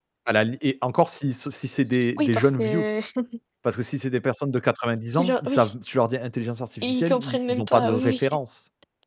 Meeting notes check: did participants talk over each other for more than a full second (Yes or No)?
Yes